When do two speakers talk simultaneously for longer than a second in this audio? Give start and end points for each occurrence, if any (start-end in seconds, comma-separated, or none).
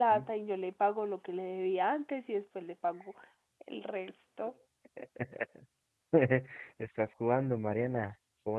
none